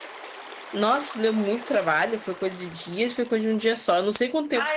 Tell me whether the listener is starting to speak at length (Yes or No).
Yes